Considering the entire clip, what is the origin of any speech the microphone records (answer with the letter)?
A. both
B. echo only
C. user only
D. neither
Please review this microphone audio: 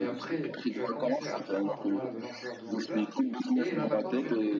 A